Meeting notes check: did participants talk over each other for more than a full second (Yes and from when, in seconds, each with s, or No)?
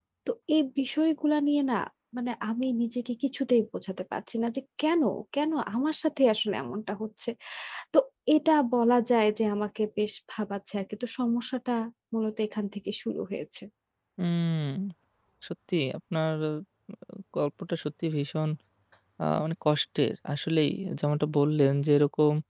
No